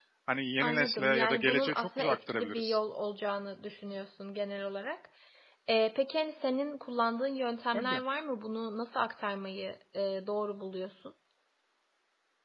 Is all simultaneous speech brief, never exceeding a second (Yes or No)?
No